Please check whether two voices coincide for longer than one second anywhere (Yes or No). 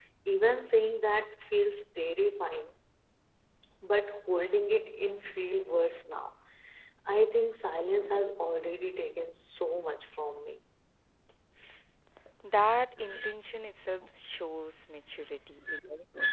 No